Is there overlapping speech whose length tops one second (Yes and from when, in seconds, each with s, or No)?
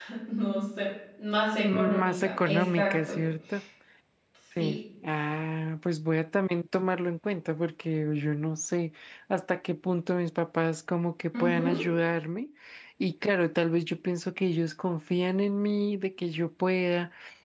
Yes, from 1.6 s